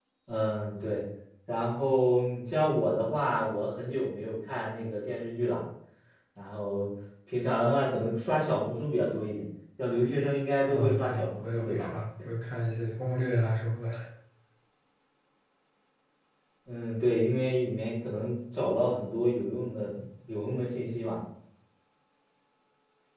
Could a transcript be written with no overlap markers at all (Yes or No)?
No